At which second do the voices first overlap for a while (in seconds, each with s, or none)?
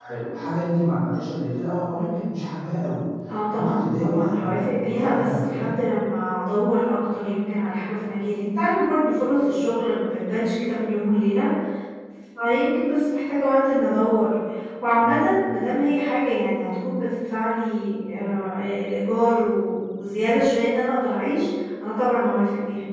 3.5 s